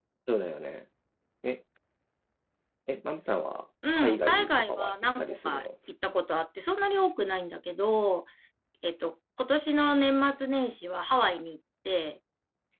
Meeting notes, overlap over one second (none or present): present